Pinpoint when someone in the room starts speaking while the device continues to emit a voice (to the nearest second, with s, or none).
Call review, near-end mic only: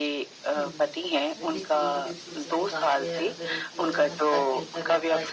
1 s